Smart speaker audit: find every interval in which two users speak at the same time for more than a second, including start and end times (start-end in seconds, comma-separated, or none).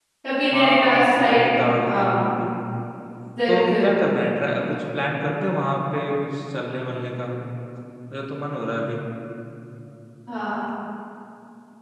0.5-2.3